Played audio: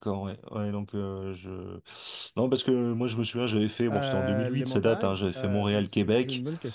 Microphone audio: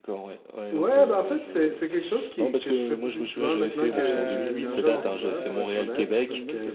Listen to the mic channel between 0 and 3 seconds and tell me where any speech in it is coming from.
both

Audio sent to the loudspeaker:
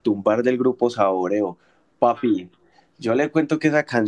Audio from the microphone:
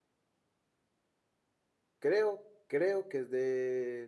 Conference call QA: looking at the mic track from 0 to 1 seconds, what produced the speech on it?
neither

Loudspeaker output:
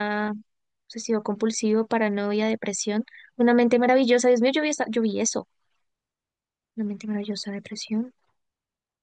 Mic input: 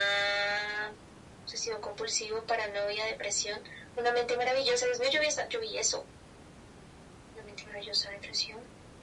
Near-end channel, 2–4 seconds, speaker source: echo only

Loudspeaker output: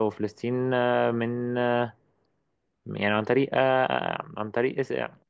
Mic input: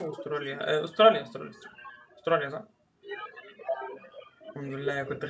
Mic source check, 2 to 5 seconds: both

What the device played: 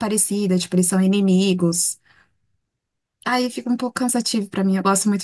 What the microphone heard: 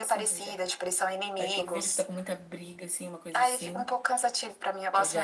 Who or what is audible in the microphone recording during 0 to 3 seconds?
both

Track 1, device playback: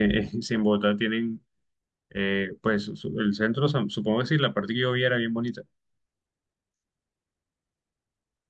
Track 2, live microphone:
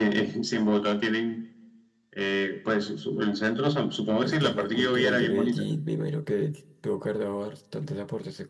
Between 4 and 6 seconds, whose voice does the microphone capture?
both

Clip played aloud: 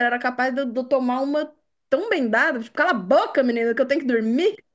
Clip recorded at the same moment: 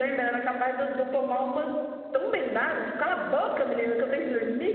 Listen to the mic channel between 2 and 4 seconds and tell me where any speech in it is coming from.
echo only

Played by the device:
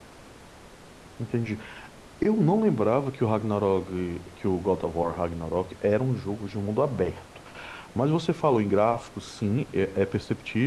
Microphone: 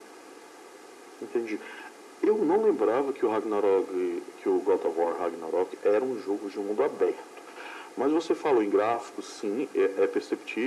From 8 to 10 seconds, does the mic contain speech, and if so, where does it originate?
echo only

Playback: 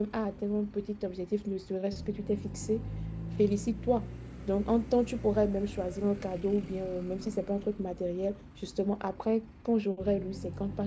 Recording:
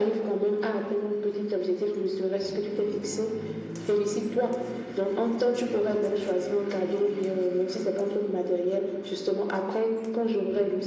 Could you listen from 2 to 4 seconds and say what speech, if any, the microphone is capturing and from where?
echo only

